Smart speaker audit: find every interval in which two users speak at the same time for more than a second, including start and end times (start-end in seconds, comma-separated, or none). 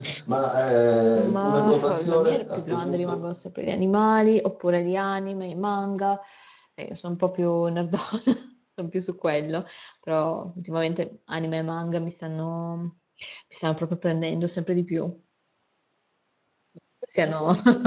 1.2-3.2